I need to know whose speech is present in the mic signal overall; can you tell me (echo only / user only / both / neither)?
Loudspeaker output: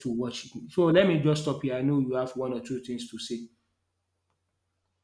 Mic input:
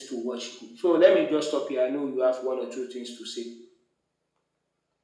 echo only